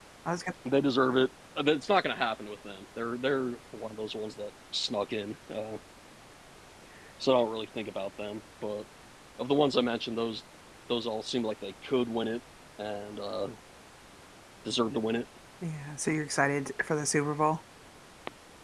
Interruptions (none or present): none